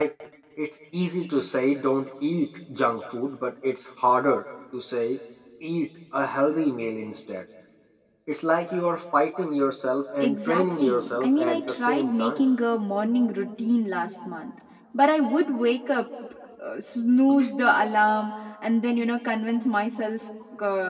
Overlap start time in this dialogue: 10.2 s

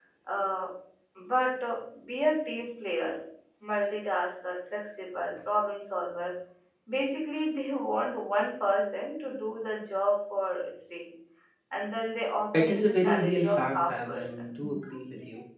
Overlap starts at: 12.5 s

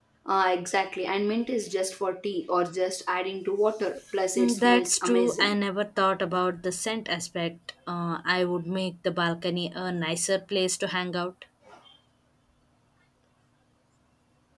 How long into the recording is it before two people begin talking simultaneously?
4.4 s

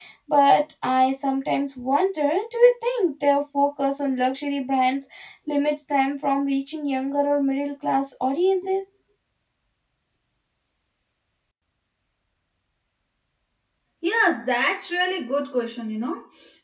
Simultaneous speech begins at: none

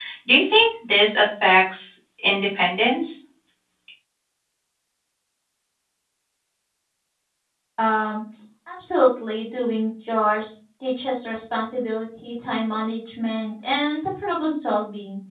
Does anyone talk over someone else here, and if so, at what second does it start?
none

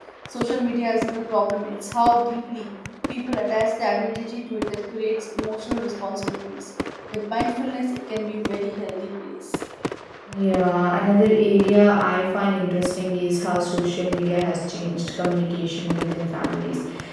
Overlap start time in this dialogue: none

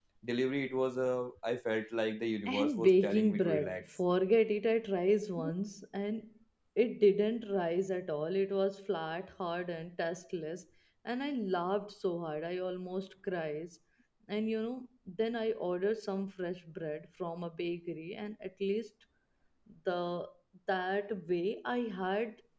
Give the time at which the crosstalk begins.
2.5 s

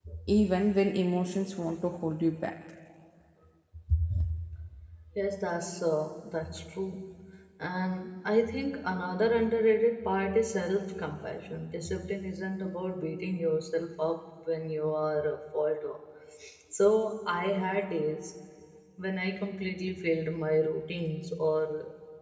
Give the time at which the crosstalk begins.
none

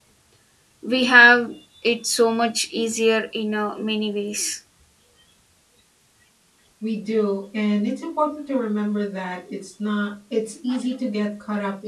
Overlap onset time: none

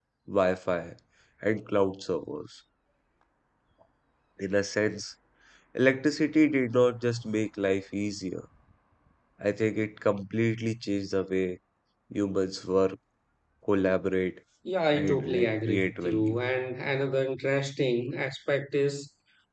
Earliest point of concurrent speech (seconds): 14.9 s

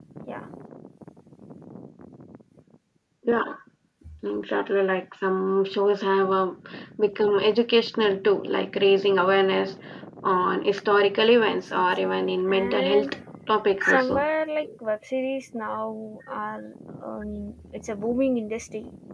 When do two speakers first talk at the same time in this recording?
11.5 s

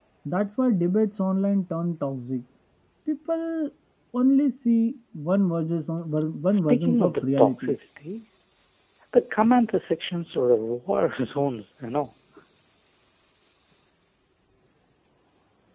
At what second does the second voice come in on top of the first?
6.5 s

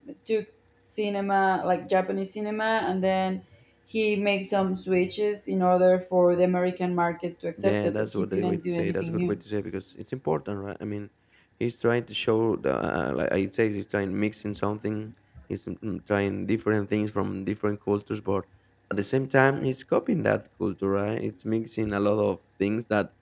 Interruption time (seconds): 7.6 s

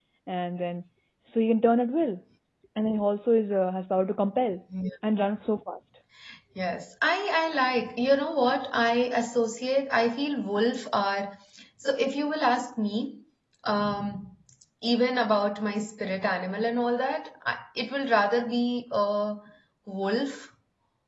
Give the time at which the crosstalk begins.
none

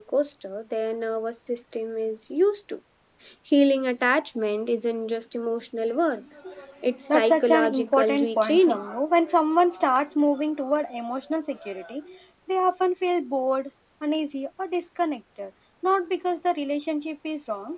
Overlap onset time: 7.1 s

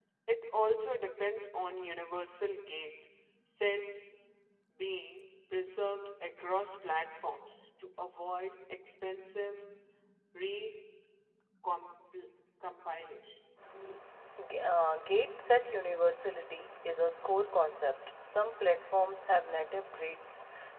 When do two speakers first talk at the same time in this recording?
none

